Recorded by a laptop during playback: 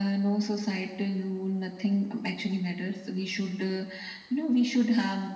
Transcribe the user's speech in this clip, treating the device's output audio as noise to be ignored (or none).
none